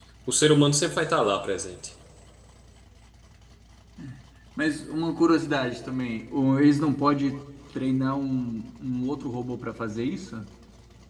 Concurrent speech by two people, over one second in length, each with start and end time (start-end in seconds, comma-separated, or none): none